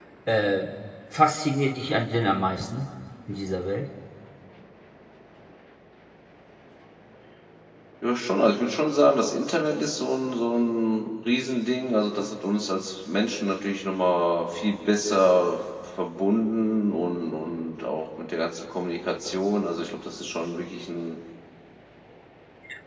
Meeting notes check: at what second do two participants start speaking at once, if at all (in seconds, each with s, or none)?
none